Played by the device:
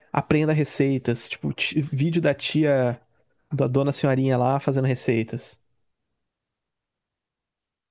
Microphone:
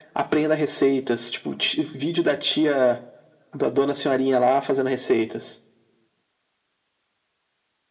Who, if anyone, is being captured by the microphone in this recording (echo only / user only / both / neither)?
echo only